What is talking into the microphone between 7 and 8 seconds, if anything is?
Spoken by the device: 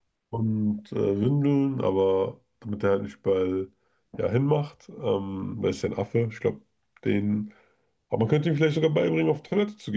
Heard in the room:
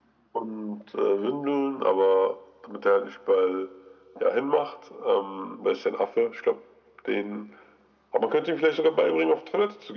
echo only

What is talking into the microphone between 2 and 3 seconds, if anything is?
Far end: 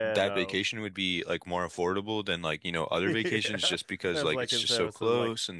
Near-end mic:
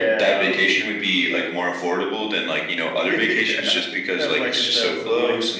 echo only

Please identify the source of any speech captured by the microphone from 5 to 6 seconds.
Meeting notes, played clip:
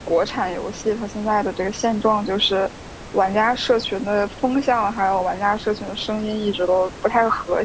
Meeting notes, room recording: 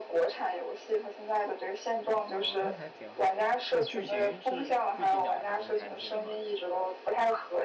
both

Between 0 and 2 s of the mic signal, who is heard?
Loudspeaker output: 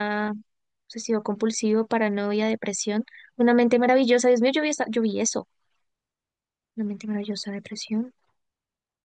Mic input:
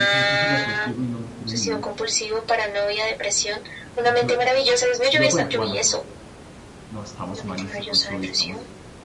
both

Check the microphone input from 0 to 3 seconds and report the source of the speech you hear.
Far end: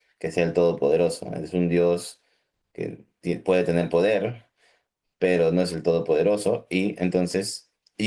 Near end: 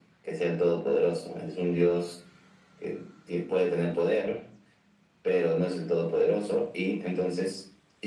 echo only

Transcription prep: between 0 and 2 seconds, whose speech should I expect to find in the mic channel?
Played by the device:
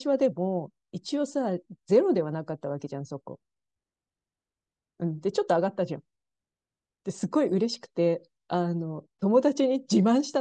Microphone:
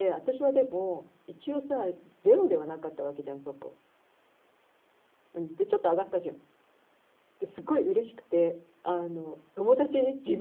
echo only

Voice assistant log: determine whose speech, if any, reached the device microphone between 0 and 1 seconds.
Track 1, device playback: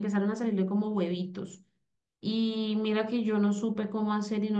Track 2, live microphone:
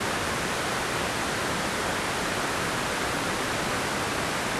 neither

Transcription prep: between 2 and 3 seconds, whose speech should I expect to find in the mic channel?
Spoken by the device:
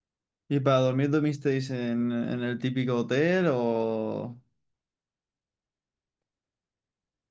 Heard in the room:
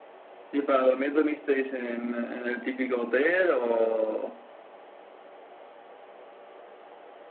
echo only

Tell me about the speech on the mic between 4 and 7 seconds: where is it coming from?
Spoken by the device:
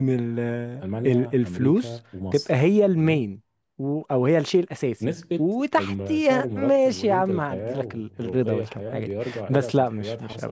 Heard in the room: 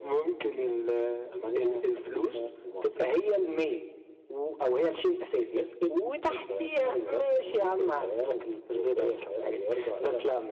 echo only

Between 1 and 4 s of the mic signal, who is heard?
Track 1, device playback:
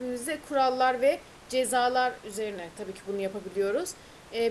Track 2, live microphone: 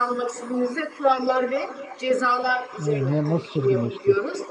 both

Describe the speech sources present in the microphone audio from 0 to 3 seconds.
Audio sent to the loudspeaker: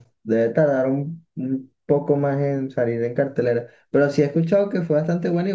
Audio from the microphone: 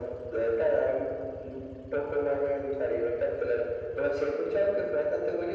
echo only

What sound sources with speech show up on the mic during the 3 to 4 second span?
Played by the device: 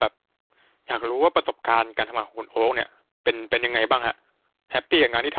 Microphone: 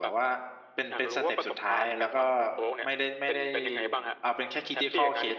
both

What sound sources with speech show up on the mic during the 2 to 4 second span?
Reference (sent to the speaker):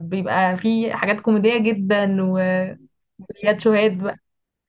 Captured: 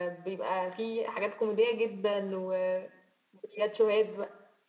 echo only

